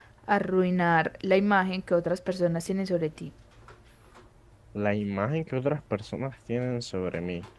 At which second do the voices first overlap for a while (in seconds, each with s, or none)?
none